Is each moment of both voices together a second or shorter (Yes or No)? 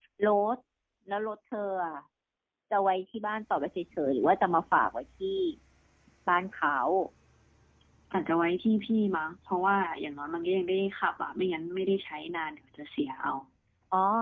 Yes